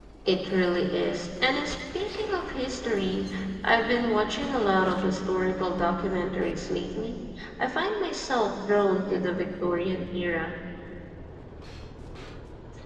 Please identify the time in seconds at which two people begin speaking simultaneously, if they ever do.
none

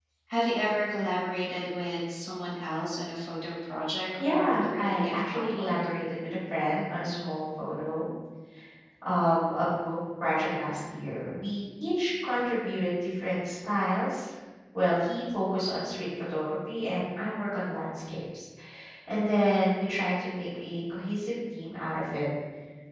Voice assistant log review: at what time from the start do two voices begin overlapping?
4 s

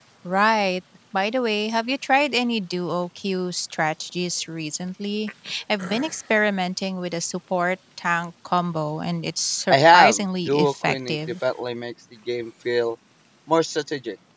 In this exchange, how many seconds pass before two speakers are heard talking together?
10 s

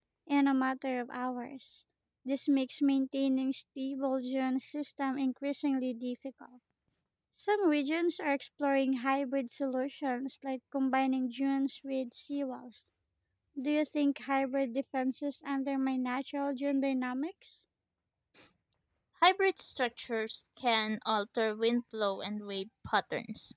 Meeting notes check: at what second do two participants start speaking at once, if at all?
none

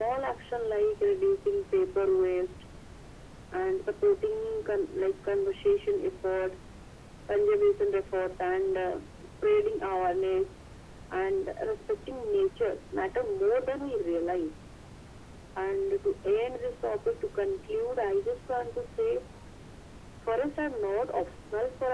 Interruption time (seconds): none

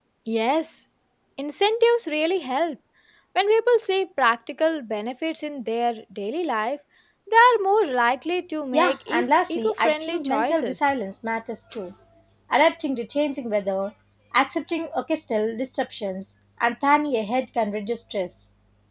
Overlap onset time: 9 s

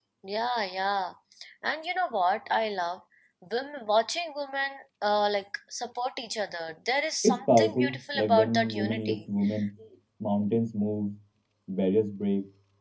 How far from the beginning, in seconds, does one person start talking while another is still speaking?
7 s

